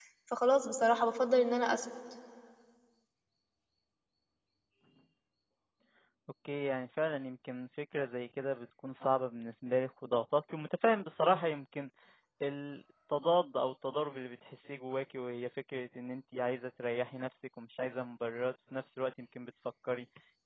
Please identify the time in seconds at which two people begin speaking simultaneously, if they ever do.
none

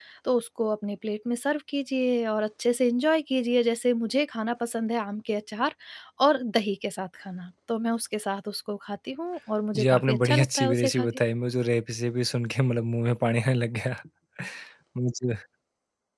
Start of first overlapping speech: 9.7 s

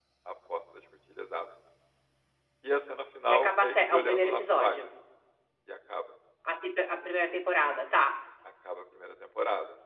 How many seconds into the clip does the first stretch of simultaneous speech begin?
3.3 s

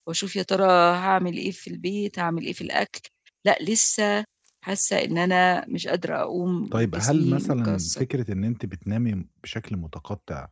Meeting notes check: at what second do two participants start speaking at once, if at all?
6.7 s

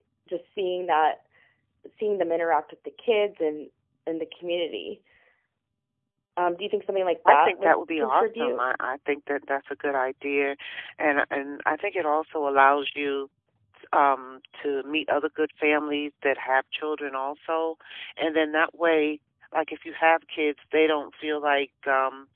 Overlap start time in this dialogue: 7.2 s

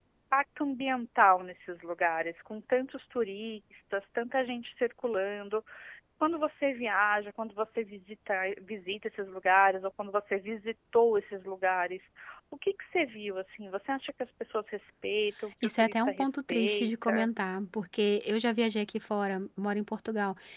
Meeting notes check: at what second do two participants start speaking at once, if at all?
15.6 s

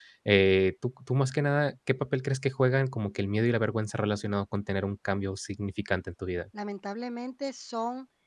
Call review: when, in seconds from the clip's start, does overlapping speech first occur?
none

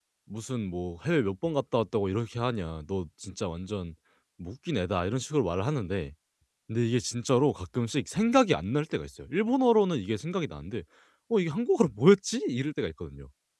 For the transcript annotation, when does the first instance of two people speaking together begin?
none

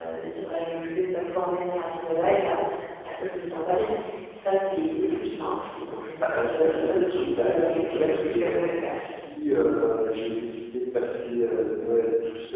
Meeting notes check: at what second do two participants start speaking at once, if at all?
6.2 s

